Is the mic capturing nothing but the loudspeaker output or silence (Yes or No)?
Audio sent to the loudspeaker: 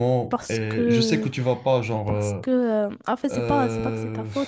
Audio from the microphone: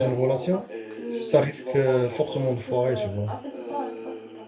No